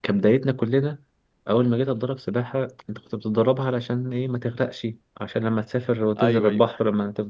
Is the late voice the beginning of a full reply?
No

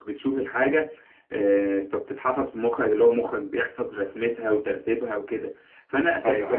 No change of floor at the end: Yes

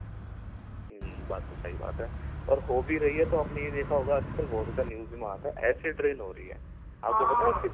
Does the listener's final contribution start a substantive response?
Yes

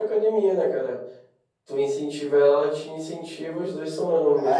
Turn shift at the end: Yes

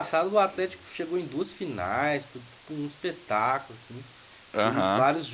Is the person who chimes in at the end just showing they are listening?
Yes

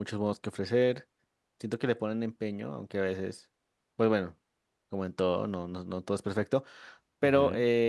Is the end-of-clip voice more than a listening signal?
No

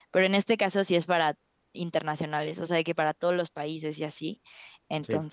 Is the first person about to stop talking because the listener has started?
No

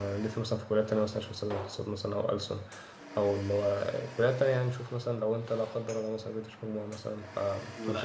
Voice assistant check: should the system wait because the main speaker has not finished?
No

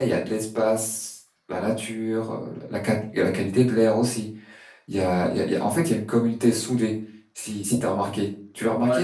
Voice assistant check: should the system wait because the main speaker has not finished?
No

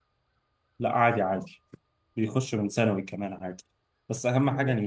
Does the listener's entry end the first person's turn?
No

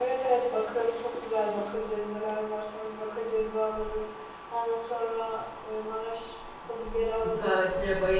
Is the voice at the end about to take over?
Yes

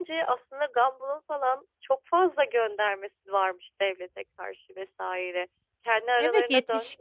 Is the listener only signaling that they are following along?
No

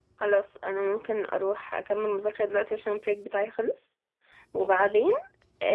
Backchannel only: Yes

